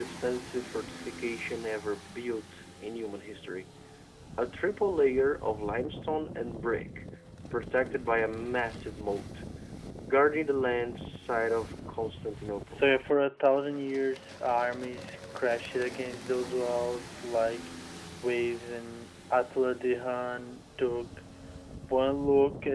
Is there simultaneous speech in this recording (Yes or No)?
No